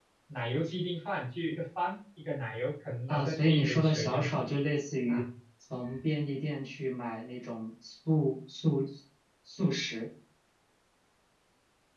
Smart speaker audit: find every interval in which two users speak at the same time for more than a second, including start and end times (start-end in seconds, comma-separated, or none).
3.1-4.3